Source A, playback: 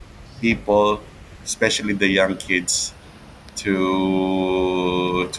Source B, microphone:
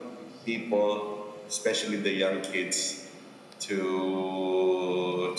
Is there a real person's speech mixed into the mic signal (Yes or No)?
No